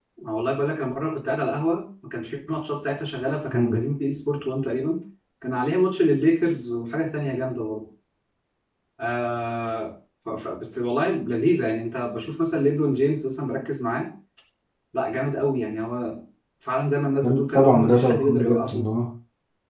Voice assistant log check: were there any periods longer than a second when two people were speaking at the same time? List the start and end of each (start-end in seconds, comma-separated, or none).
17.2-18.8